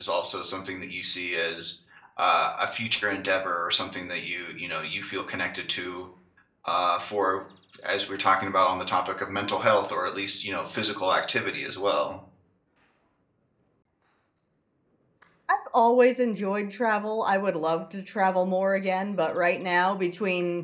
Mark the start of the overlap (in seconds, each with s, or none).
none